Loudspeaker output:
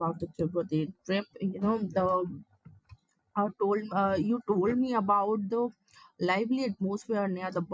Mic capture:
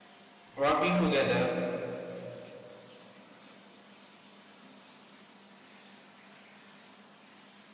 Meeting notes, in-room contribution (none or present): present